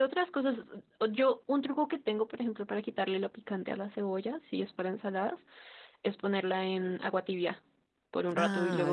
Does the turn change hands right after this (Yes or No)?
Yes